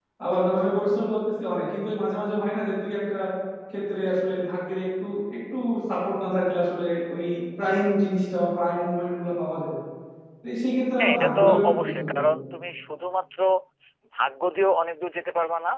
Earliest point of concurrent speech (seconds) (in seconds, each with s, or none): 11.0 s